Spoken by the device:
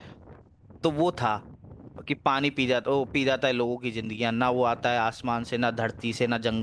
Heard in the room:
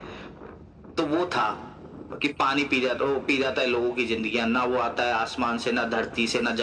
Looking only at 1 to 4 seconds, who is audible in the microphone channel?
echo only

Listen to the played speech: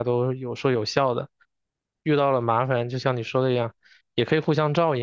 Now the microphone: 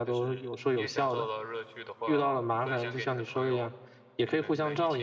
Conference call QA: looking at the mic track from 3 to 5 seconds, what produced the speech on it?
both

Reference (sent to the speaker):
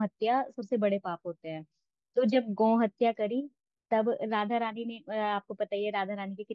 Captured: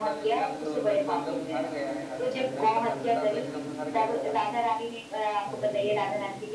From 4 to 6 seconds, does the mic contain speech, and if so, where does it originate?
both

